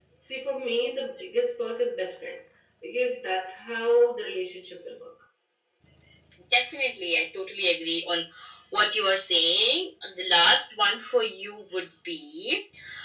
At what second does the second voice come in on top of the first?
none

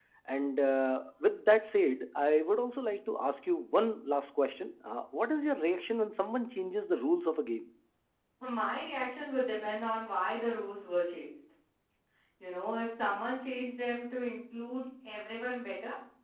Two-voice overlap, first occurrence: none

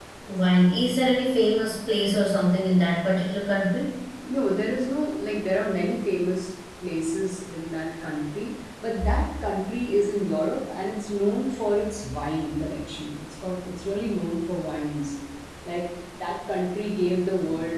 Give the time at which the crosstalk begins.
none

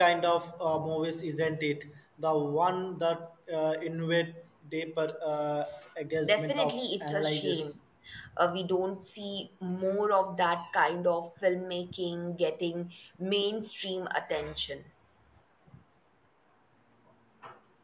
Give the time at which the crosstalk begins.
6.2 s

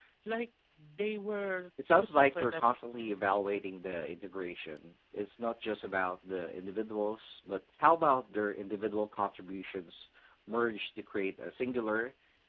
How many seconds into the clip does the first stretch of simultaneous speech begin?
1.8 s

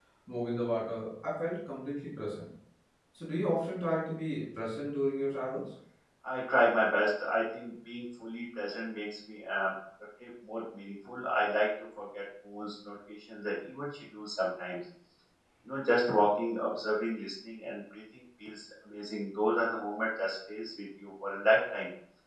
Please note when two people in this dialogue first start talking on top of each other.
none

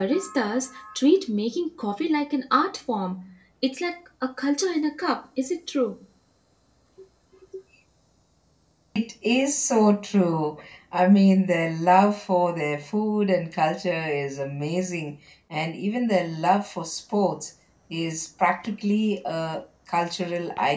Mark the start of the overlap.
none

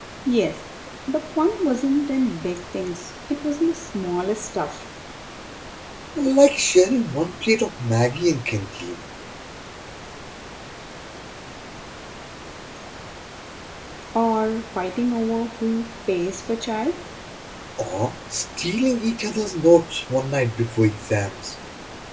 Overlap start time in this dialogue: none

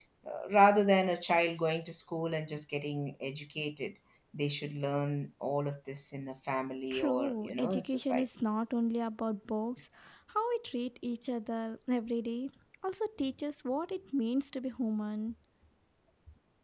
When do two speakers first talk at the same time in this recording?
6.9 s

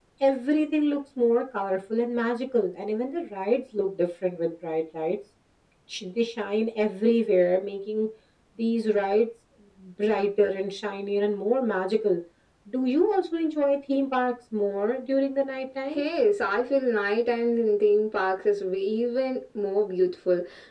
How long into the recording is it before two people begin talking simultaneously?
none

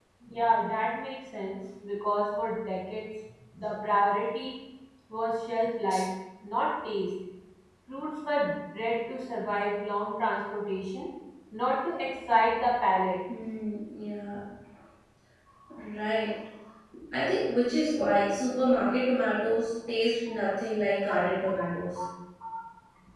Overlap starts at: none

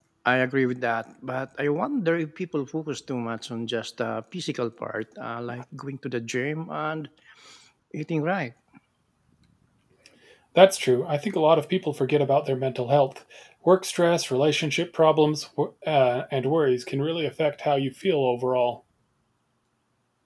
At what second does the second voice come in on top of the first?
none

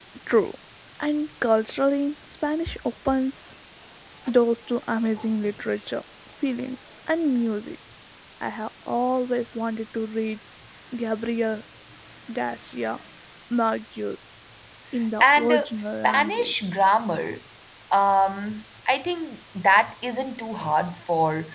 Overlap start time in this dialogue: 15.2 s

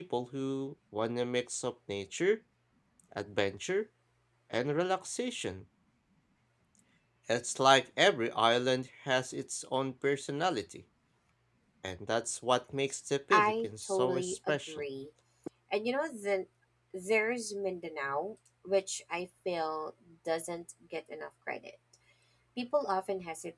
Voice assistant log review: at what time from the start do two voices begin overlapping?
13.3 s

